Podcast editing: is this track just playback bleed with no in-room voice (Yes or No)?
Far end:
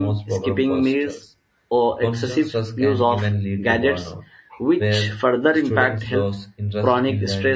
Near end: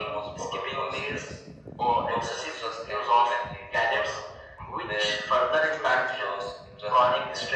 Yes